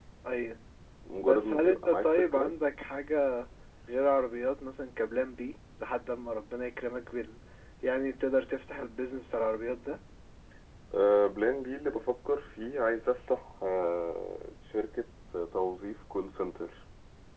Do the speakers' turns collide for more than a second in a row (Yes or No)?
Yes